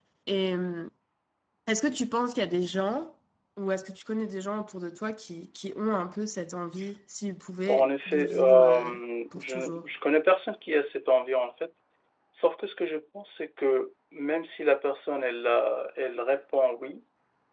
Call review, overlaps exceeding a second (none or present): present